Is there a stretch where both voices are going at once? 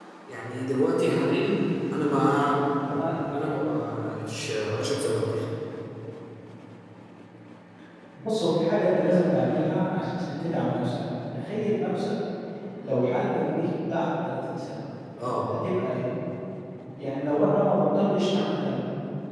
No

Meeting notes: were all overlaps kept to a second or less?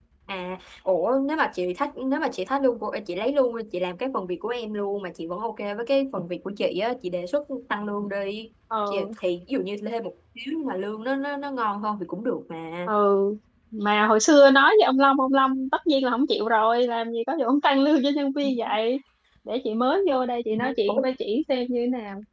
Yes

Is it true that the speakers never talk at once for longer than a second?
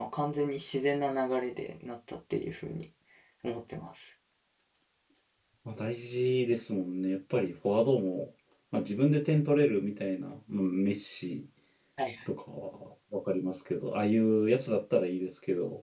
Yes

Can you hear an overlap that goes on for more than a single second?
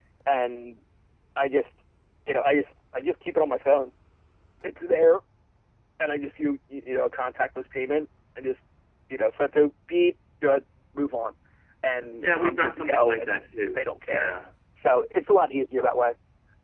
Yes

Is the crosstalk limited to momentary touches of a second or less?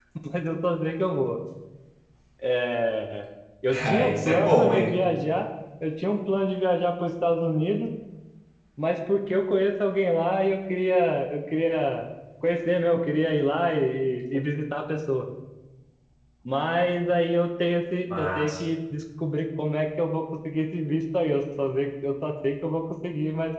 No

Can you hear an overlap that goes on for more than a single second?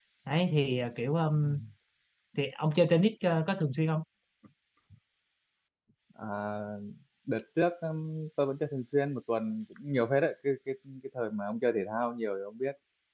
No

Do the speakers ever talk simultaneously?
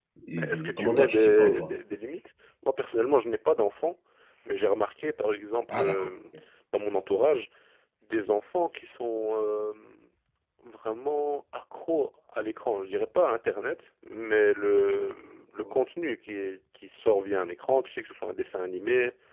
Yes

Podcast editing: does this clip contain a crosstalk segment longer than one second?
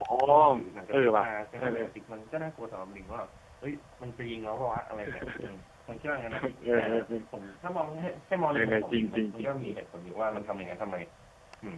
Yes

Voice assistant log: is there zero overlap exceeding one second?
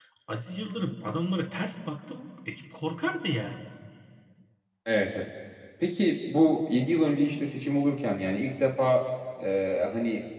Yes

